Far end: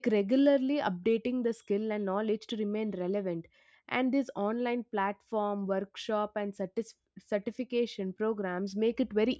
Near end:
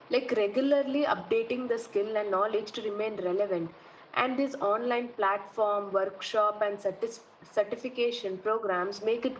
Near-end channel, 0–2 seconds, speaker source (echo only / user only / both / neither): echo only